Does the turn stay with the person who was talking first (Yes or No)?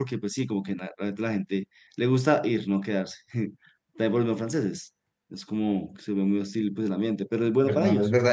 No